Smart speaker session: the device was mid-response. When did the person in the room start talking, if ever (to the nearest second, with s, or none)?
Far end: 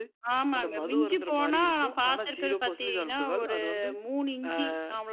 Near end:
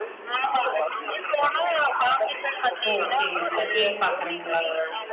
3 s